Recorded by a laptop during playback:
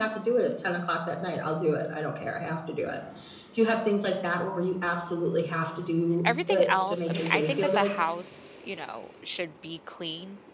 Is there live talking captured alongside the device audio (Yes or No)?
Yes